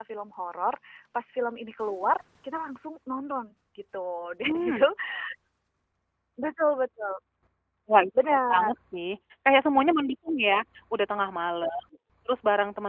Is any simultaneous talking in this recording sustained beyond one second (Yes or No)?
No